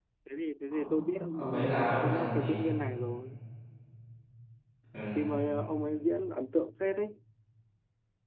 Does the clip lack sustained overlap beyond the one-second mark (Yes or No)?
No